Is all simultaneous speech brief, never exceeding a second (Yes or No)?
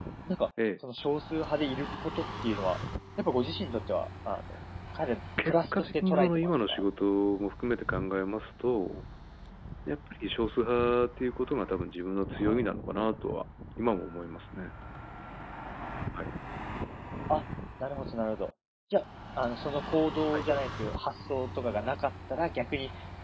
No